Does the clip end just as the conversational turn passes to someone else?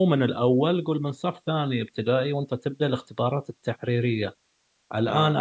No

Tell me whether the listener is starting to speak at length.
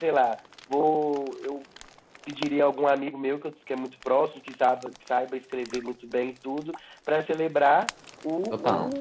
No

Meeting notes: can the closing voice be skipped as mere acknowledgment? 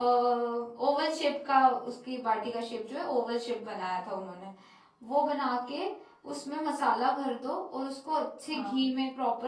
Yes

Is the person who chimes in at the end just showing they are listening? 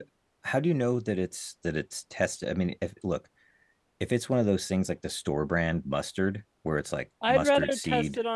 No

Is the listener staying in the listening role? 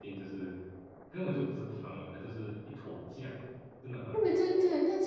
No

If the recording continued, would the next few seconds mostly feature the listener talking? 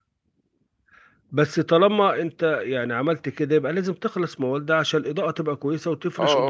Yes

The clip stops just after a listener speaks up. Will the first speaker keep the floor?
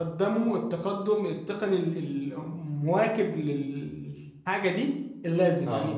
Yes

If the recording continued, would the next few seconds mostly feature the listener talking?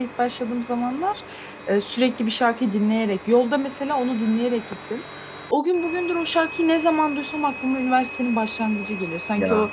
No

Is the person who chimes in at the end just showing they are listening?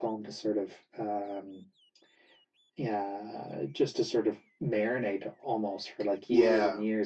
Yes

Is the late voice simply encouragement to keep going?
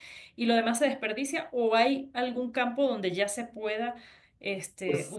Yes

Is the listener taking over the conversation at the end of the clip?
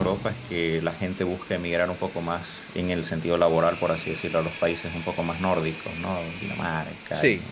No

